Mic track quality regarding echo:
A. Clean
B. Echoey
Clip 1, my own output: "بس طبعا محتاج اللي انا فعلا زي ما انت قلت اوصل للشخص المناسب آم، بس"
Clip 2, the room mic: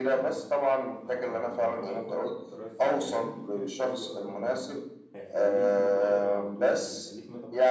B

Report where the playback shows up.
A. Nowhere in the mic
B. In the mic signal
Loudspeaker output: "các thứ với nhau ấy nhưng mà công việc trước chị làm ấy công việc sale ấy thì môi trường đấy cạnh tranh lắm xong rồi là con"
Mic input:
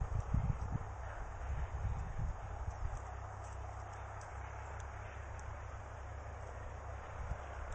A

